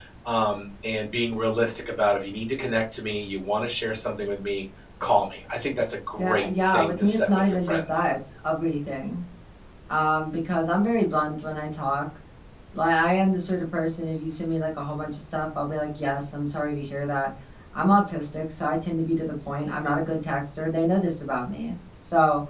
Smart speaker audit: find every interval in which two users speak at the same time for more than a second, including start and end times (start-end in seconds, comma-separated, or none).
6.2-7.8